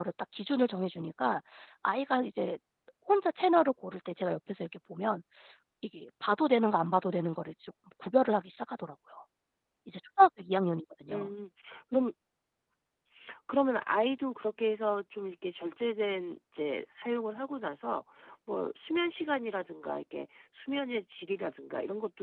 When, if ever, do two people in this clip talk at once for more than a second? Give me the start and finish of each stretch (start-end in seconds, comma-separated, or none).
none